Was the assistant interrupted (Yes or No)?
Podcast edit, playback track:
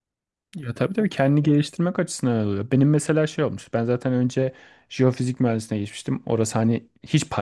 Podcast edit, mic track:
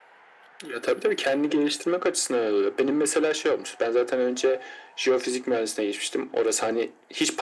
No